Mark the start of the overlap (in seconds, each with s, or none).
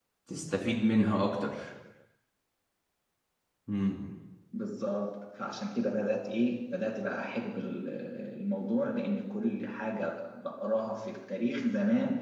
none